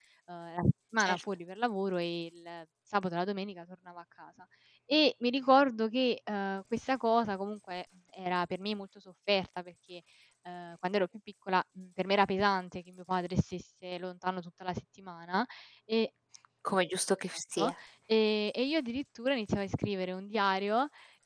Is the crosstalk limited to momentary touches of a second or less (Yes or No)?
Yes